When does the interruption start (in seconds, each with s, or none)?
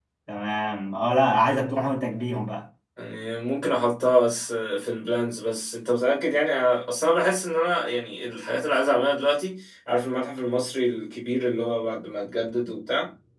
none